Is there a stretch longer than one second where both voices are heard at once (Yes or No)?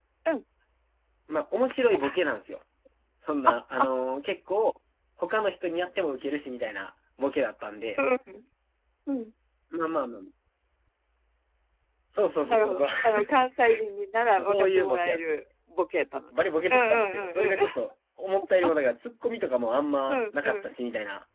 Yes